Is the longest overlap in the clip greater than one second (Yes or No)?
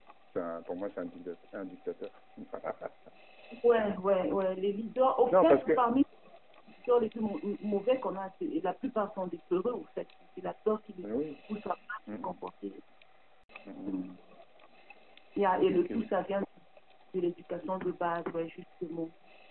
No